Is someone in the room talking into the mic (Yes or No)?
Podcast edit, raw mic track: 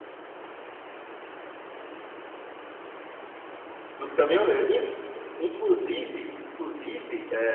Yes